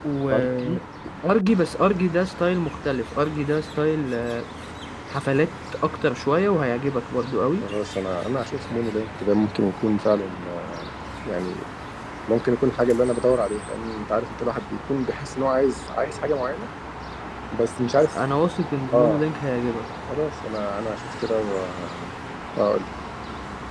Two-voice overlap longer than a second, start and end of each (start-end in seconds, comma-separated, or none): none